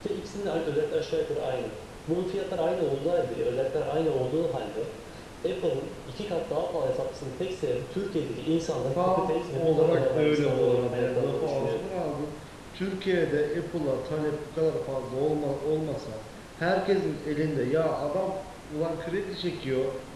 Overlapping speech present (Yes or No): Yes